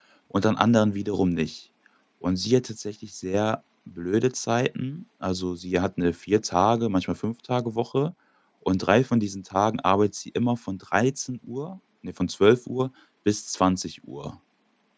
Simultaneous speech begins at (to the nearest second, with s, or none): none